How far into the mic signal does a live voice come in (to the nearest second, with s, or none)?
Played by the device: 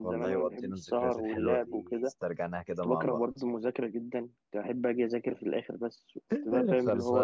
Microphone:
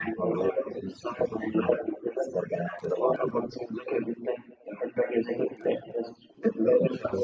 none